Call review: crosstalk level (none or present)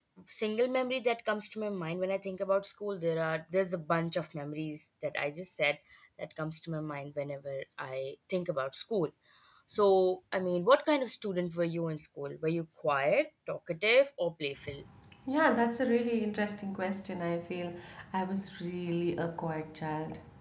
none